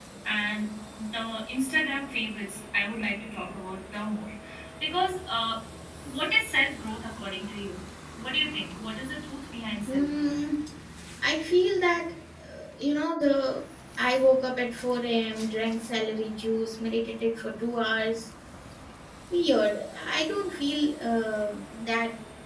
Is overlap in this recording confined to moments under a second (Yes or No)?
Yes